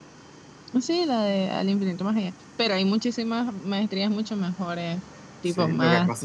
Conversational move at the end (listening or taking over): taking over